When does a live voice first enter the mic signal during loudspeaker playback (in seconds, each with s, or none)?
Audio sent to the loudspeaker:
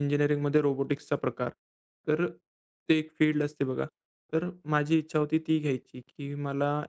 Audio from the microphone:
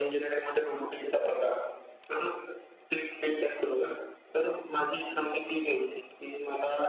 none